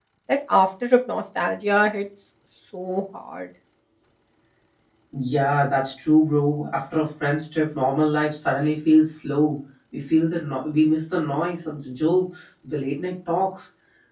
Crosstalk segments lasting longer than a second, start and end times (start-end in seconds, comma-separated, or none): none